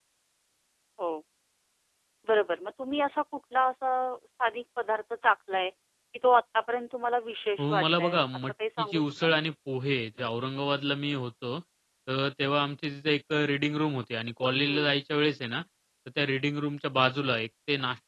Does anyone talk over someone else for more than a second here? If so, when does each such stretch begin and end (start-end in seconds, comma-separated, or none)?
7.6-9.3